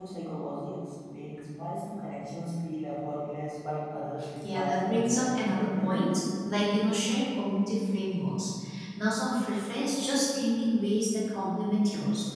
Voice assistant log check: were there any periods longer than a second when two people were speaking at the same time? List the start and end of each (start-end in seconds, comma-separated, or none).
4.5-6.0